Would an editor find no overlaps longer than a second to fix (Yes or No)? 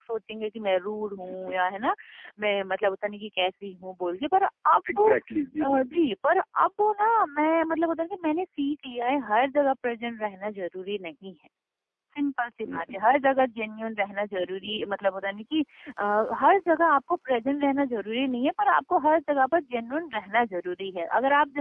Yes